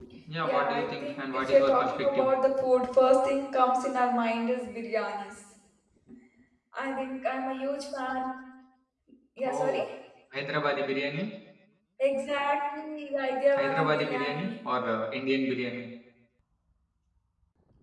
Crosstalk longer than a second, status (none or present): present